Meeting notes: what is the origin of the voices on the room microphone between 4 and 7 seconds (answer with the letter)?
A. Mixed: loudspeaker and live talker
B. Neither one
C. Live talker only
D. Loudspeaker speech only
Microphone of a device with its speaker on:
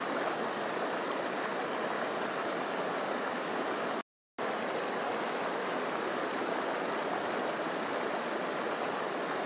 B